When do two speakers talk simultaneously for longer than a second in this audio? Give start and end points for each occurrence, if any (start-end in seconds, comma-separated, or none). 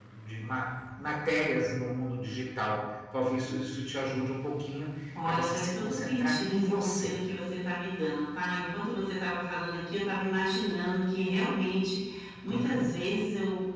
5.2-7.1